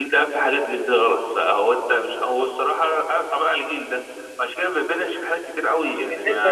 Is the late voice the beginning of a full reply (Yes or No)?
Yes